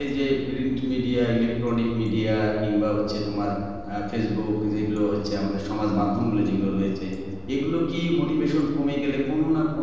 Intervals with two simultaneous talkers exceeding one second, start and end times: none

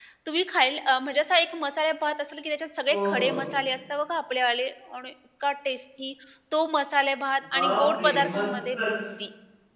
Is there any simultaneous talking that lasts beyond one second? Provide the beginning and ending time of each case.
7.5-8.9

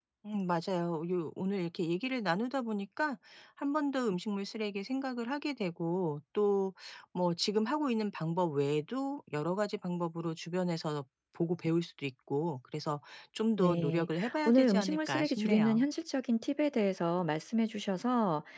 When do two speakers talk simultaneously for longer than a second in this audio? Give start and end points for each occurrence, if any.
13.6-15.8

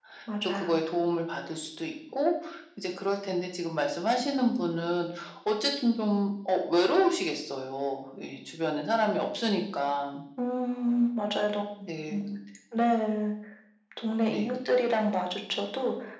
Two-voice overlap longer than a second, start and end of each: none

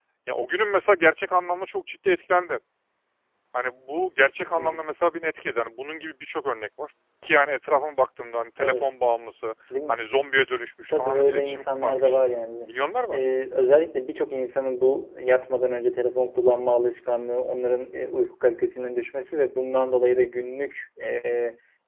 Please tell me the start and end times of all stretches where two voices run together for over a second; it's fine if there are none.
10.9-12.1

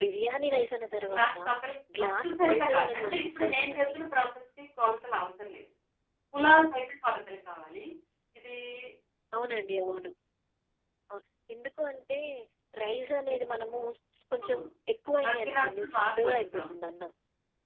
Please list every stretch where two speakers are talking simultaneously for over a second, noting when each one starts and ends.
2.0-3.9, 15.2-16.8

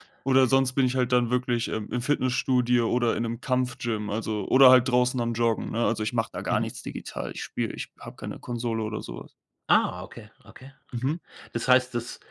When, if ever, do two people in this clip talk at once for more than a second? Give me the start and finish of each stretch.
none

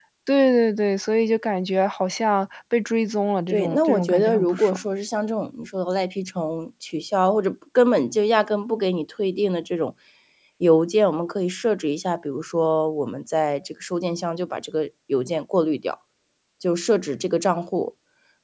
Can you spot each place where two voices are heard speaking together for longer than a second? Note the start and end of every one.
3.5-4.8

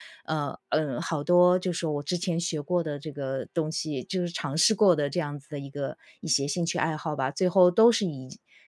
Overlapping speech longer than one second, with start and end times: none

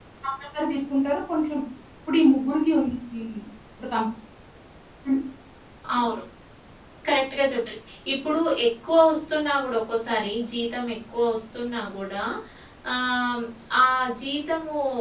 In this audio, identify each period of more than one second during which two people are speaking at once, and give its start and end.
none

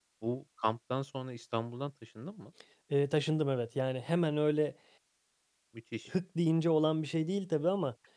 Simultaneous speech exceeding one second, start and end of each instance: none

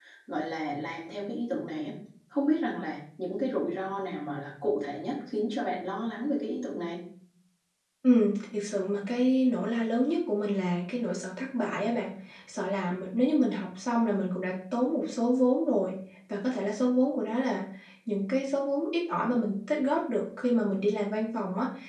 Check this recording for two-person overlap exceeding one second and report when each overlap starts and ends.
none

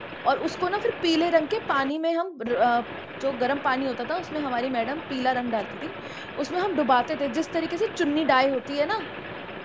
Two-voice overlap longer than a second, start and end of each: none

